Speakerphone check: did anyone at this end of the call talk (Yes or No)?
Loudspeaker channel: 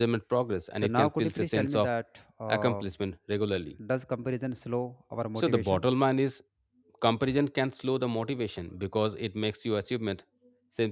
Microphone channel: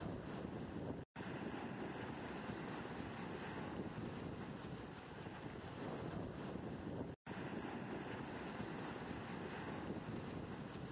No